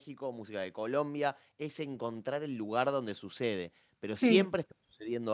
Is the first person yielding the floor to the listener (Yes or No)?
No